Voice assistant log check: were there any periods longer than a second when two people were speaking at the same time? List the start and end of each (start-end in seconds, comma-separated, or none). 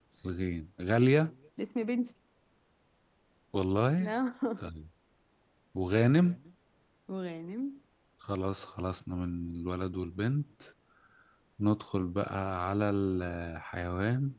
none